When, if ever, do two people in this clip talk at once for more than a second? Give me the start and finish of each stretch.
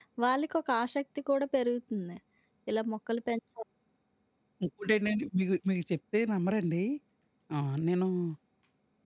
none

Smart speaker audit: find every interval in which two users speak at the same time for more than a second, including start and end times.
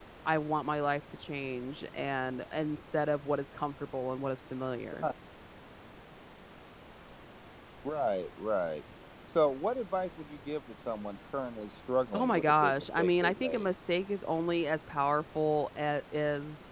12.1-13.7

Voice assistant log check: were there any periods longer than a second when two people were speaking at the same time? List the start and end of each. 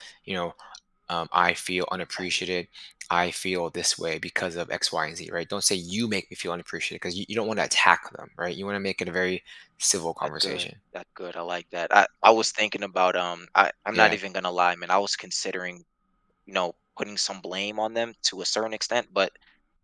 none

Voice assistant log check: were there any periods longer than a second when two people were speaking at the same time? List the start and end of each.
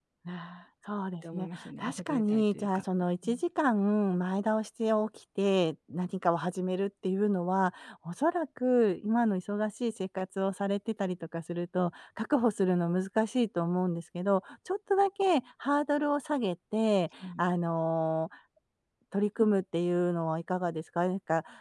1.3-2.8

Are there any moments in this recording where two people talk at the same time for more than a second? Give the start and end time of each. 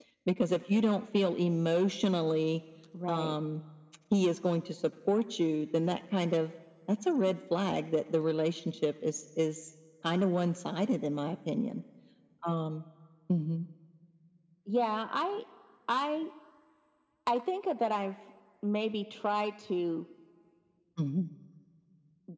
none

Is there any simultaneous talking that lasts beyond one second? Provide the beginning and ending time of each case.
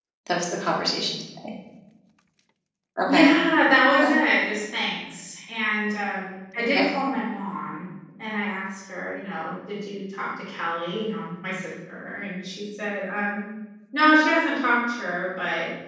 none

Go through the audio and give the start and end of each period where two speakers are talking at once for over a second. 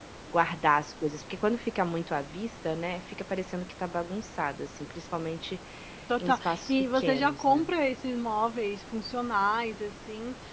6.2-7.7

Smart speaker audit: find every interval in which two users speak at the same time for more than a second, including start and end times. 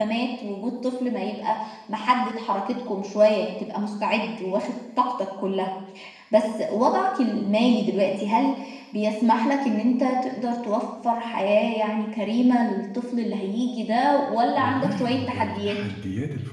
14.6-15.8

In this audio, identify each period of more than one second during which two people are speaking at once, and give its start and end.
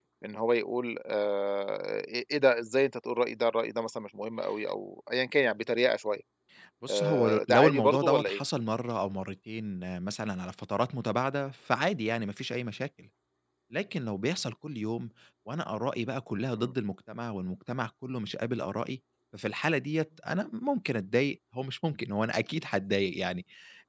6.9-8.4

